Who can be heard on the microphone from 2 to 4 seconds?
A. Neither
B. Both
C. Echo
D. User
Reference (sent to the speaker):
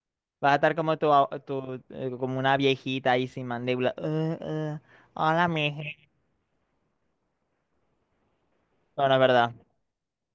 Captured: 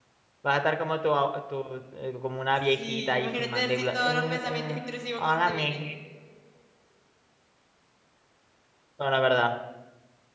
B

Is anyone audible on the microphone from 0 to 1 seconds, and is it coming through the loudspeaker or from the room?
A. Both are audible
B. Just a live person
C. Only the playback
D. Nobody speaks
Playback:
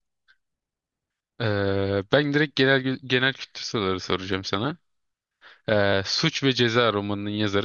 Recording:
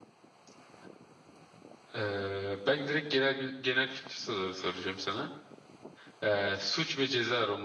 D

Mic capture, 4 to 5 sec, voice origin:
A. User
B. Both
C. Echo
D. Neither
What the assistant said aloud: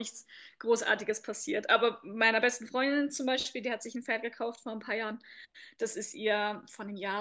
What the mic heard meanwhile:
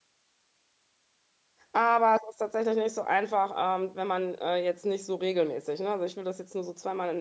A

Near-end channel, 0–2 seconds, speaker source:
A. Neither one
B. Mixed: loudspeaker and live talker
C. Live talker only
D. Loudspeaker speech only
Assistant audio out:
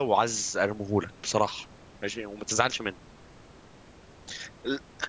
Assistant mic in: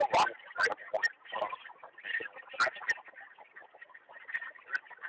D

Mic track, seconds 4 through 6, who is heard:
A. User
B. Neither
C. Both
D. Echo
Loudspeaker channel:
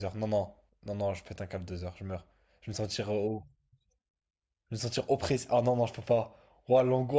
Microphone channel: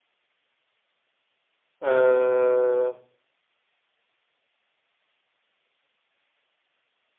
B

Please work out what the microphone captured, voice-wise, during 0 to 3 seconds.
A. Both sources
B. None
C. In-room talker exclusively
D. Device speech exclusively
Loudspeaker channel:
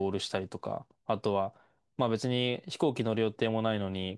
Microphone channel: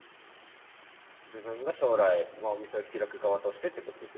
C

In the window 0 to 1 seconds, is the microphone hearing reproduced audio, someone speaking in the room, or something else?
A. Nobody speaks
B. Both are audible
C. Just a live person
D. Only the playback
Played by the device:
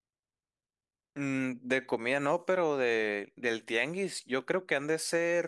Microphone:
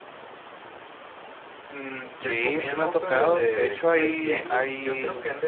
A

